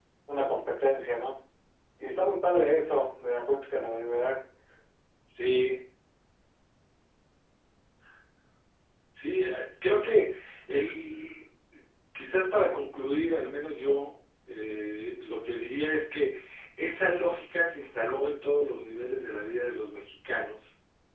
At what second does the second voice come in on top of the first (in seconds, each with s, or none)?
none